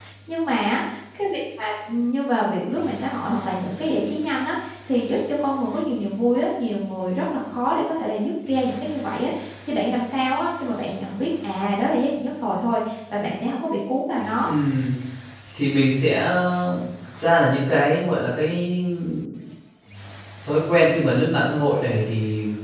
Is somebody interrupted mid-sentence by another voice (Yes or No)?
No